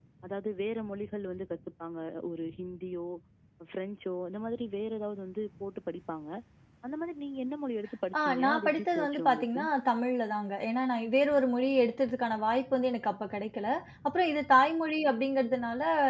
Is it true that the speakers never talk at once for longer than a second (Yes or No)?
No